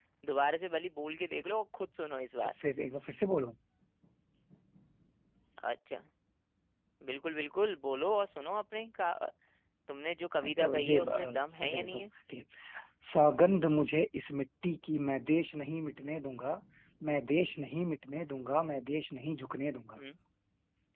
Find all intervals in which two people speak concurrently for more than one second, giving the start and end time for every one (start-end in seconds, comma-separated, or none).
10.6-12.1